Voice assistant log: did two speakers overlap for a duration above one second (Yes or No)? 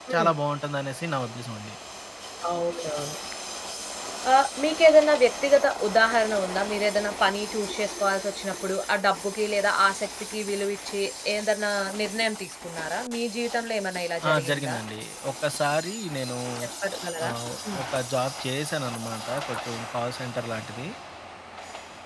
No